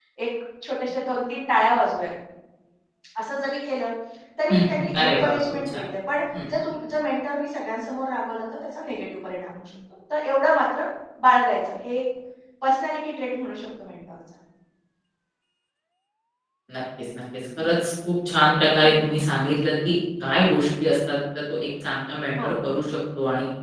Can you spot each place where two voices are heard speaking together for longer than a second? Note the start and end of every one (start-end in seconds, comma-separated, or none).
4.5-5.8